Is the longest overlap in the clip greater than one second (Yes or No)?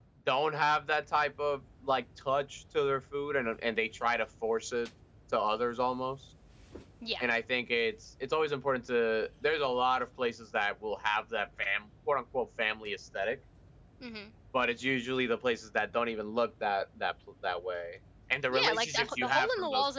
Yes